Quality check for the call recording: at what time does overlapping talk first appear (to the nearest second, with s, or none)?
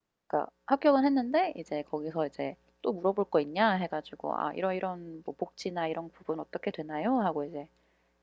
none